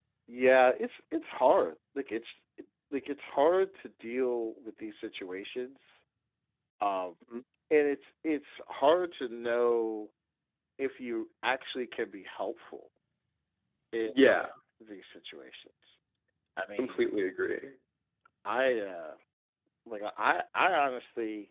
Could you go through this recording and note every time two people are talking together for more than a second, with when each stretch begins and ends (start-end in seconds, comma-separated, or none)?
none